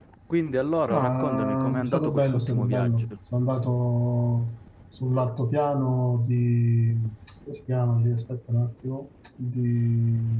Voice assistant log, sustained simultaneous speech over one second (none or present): present